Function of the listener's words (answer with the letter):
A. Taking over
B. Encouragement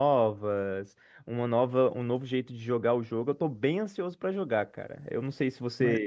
B